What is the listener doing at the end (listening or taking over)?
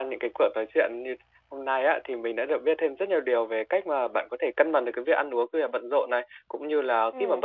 listening